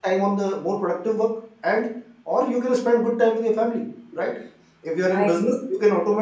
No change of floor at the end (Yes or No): Yes